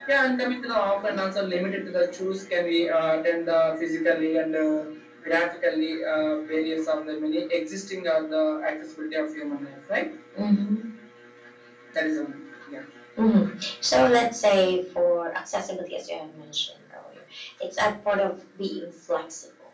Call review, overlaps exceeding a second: none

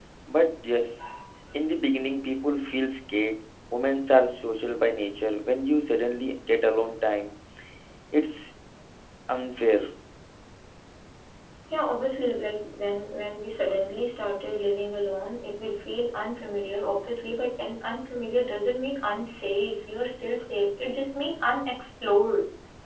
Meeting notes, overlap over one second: none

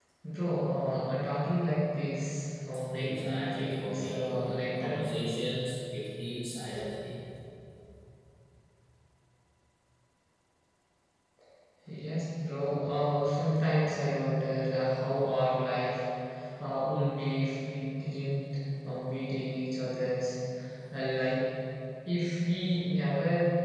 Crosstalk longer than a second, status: present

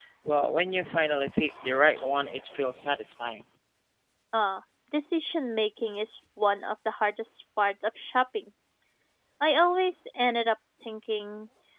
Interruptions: none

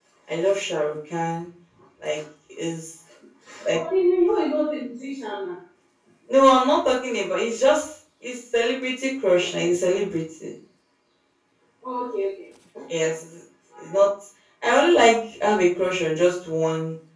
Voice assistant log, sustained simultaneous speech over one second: none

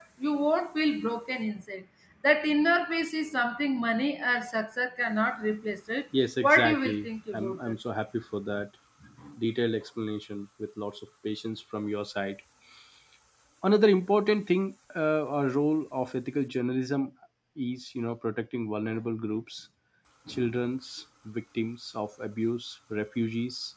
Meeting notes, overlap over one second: present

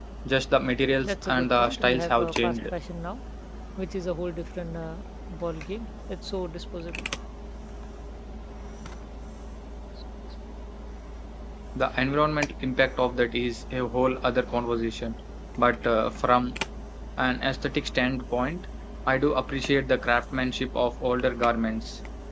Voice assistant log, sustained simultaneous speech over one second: present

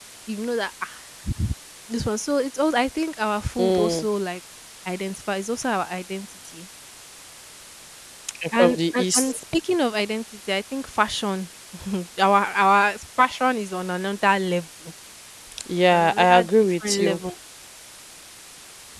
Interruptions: present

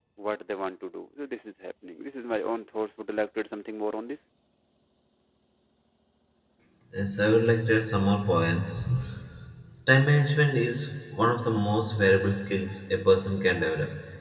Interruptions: none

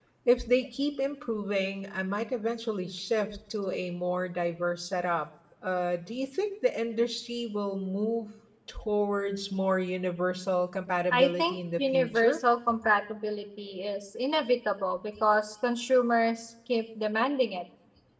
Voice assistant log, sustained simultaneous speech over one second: present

